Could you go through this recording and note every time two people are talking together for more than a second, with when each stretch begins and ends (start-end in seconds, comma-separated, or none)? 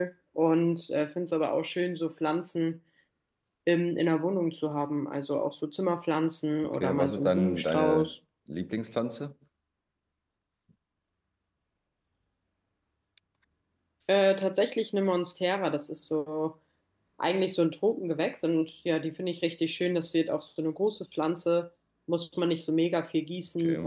6.7-8.1